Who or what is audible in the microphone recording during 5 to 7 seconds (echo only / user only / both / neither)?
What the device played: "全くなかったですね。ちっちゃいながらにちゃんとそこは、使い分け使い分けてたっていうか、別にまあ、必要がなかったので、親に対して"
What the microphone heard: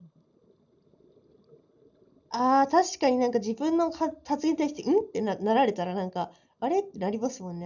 user only